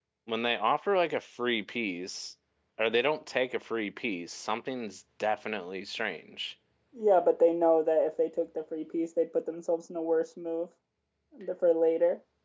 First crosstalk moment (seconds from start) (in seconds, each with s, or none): none